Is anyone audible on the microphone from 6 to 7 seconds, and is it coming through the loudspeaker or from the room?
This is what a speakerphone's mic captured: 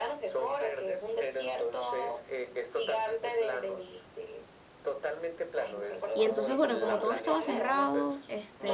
both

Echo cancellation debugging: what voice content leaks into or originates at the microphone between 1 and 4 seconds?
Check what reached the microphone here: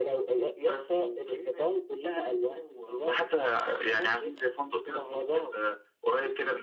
echo only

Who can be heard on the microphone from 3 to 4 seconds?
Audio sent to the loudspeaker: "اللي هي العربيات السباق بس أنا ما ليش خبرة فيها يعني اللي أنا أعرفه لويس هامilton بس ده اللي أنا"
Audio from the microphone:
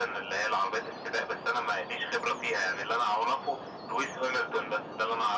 echo only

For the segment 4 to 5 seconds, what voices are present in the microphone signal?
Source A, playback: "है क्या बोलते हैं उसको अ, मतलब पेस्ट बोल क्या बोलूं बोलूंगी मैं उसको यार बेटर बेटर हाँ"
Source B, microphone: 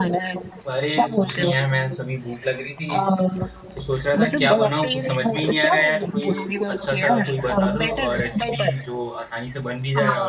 both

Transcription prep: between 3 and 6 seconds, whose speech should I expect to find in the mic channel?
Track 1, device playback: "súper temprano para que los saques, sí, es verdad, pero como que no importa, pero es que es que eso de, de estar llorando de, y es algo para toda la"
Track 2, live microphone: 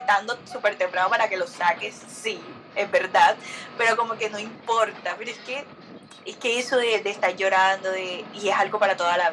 echo only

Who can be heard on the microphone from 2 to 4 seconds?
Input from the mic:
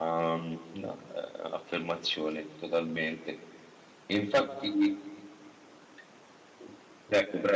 user only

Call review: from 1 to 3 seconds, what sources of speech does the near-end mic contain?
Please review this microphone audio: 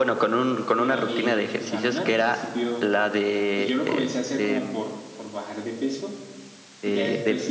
both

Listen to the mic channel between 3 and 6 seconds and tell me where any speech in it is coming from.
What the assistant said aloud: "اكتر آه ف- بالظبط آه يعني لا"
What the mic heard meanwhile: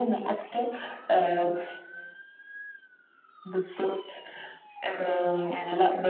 echo only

